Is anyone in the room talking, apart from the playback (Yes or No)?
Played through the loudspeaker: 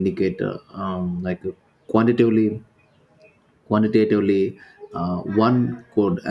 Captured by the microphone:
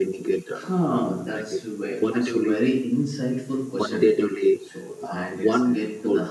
Yes